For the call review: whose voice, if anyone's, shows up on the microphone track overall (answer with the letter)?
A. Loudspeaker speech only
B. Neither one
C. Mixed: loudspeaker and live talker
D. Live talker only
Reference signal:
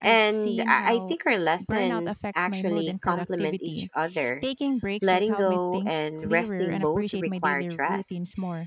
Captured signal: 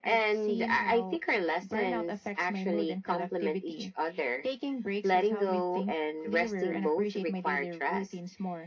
A